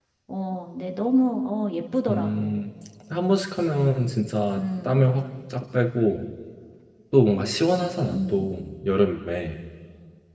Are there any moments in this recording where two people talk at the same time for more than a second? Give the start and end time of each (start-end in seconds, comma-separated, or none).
none